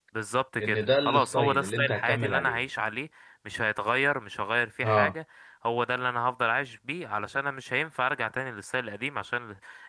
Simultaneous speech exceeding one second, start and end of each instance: 0.6-2.6

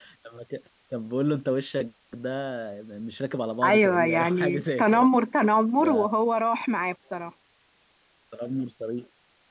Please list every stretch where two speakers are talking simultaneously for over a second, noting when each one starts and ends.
3.6-5.1

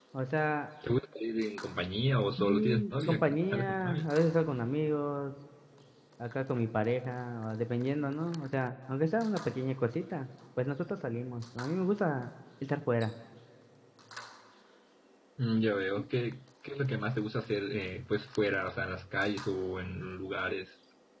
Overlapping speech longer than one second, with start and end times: 2.4-4.1

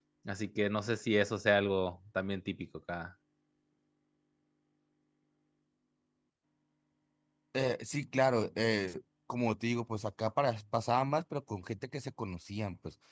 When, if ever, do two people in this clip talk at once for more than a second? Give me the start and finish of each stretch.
none

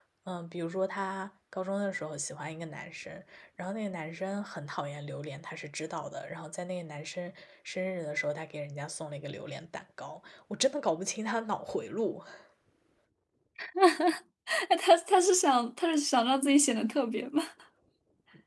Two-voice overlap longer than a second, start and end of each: none

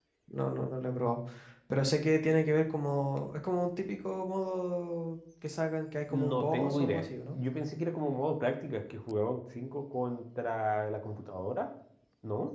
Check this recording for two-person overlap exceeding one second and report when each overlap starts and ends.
6.1-7.4

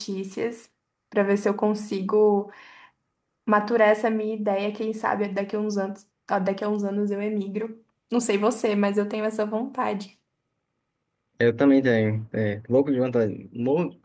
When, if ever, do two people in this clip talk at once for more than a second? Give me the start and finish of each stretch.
none

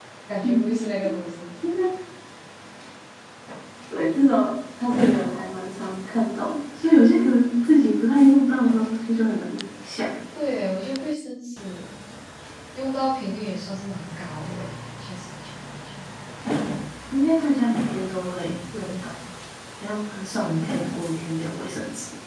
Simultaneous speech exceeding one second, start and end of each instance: none

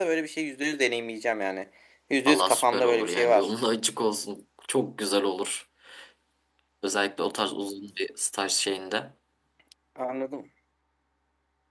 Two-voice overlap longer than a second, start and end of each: 2.3-3.5

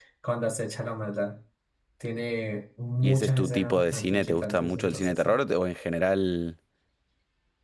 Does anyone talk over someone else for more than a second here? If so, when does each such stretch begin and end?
3.0-5.4

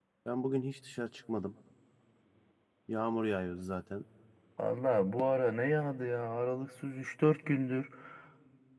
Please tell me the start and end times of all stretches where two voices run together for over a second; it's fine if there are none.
none

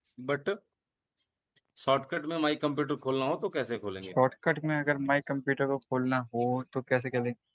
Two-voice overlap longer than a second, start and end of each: none

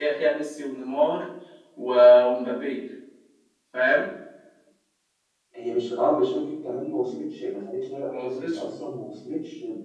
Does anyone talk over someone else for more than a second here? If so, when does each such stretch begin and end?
none

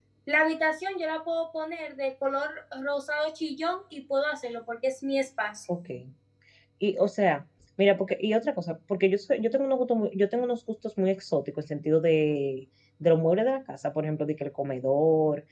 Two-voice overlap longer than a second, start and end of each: none

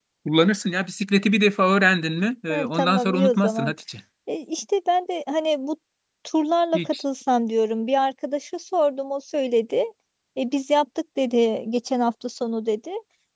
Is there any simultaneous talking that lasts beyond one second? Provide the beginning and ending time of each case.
2.5-3.7

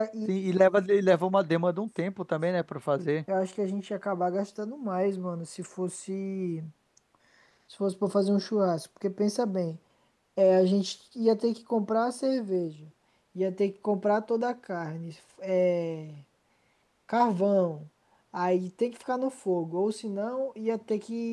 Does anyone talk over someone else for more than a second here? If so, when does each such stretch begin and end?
none

